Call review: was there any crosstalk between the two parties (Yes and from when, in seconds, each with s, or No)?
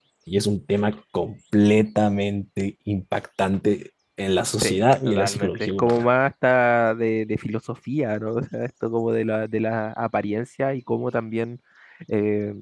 Yes, from 4.6 s